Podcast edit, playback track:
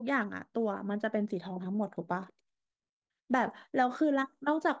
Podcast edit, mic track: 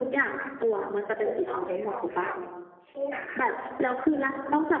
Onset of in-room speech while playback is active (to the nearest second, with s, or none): 1 s